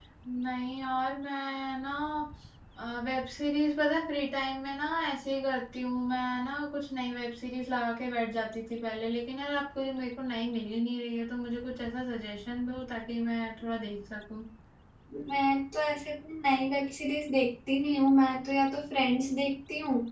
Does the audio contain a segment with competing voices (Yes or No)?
No